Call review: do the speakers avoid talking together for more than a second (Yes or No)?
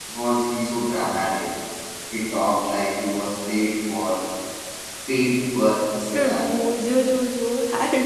Yes